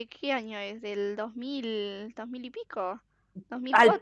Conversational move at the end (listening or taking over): taking over